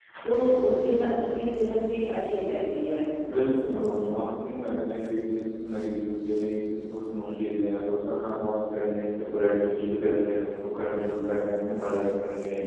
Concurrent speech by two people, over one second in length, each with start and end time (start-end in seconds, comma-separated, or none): none